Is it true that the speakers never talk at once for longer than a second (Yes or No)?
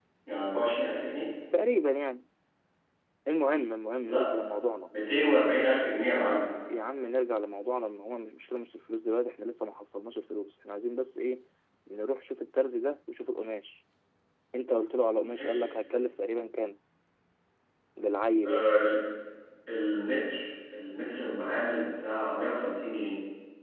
Yes